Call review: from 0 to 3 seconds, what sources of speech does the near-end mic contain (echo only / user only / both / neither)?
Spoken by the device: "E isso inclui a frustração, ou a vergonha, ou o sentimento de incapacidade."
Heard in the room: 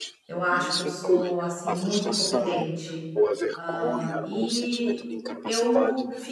both